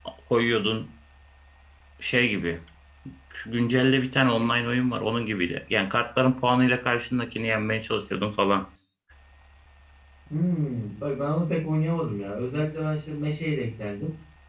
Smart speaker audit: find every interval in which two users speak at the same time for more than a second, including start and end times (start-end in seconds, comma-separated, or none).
none